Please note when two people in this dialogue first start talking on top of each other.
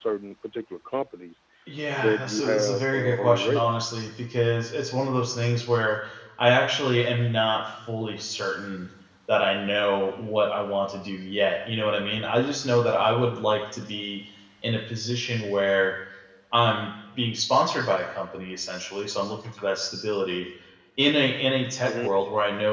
2.0 s

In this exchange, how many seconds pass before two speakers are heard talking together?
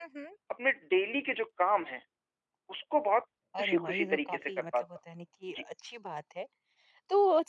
3.5 s

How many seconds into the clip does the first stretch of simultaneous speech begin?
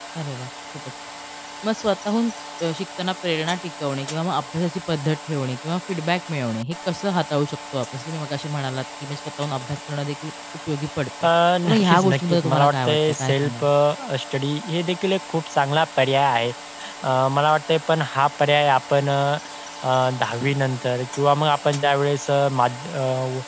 11.6 s

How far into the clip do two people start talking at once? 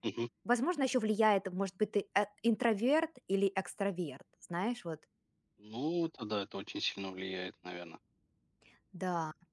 none

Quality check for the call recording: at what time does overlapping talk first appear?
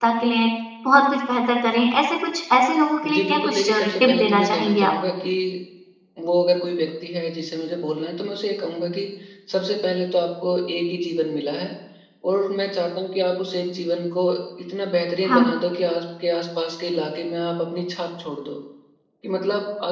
3.0 s

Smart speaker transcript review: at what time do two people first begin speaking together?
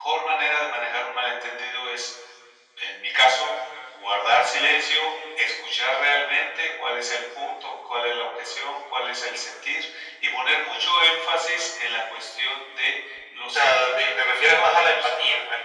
13.5 s

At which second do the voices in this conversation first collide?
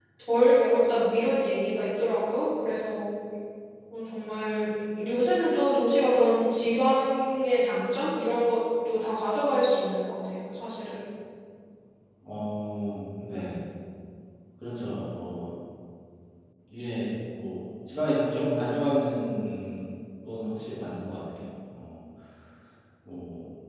none

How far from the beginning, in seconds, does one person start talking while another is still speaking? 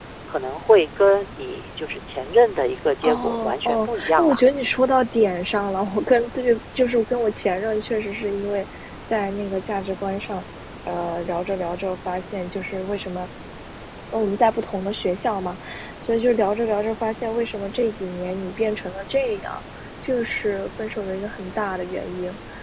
3.0 s

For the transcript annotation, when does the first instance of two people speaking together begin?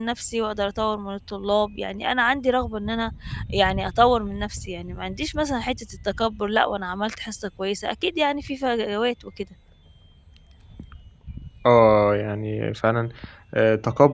none

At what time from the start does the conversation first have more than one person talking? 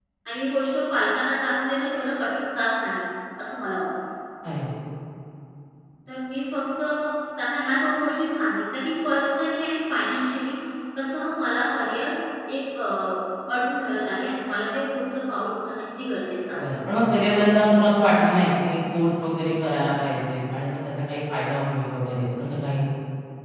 none

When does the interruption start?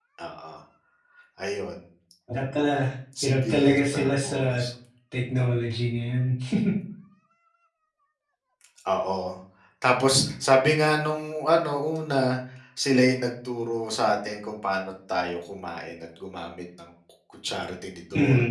3.2 s

